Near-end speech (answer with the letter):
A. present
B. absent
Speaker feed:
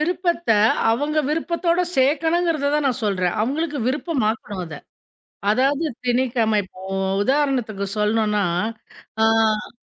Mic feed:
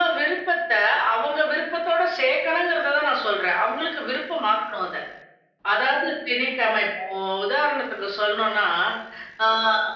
B